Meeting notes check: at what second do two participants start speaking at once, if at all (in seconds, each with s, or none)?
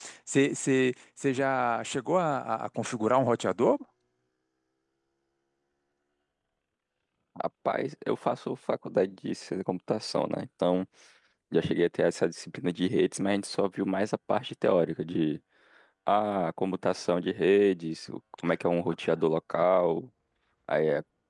none